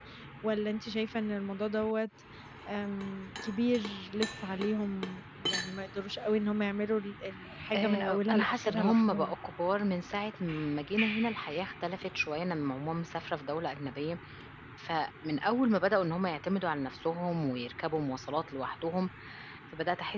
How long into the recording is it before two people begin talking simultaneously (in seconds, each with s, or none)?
7.7 s